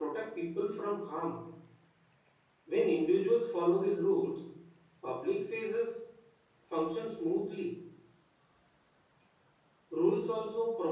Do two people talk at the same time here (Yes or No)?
No